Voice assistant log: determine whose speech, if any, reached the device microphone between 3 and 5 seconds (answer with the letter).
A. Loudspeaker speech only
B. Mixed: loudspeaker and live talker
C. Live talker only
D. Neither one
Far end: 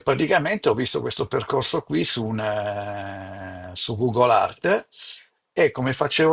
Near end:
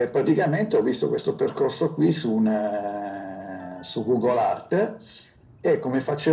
A